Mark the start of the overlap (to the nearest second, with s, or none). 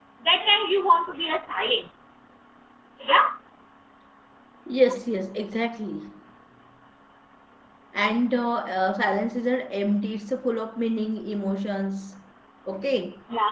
none